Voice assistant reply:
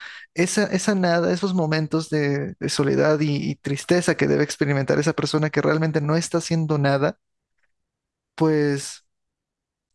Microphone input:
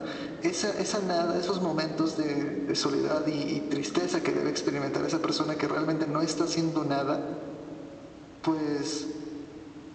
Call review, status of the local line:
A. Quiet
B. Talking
A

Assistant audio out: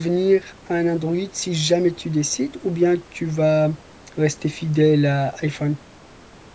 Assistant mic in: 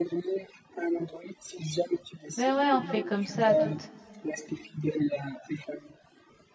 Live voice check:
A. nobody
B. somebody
B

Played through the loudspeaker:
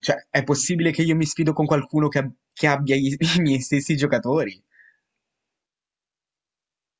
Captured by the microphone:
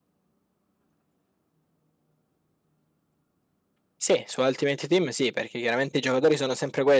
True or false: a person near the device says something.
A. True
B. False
A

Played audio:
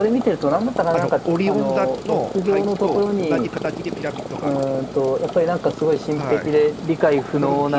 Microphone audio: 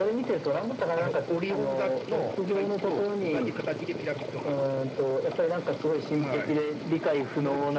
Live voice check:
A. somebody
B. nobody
B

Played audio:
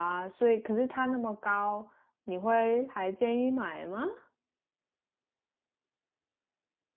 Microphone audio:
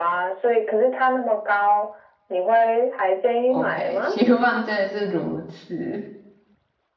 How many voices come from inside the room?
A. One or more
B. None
A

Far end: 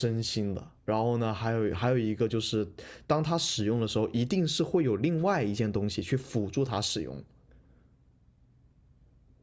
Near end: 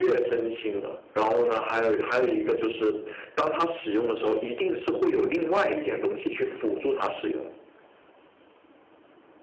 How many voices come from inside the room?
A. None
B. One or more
A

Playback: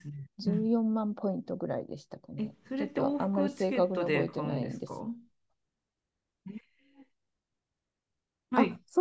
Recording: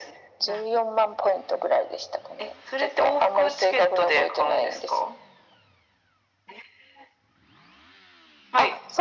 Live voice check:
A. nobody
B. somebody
A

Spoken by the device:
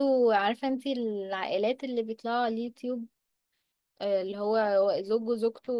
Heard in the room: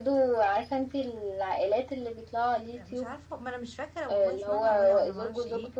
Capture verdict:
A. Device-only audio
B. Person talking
B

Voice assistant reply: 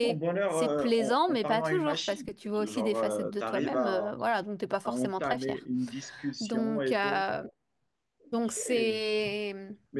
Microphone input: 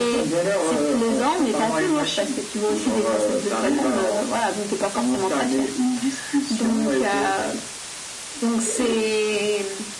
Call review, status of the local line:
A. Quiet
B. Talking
A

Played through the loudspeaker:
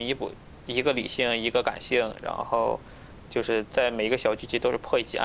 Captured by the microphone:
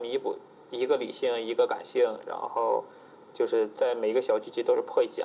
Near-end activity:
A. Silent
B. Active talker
A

